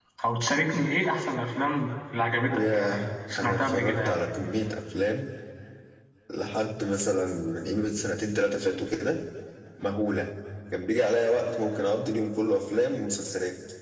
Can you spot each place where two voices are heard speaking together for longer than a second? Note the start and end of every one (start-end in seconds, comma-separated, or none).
2.5-4.2